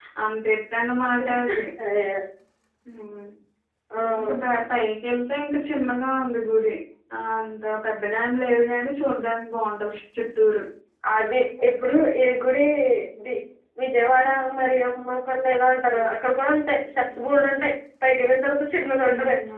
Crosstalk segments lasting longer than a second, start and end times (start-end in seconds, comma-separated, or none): none